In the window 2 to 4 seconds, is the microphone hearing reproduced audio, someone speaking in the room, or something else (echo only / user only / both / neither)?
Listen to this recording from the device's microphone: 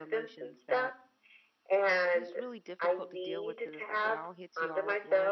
both